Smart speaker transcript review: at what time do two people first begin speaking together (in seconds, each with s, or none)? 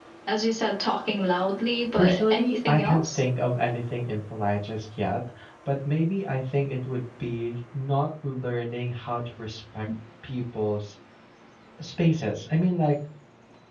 1.9 s